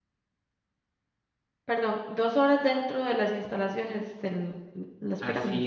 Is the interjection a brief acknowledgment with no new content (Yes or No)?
No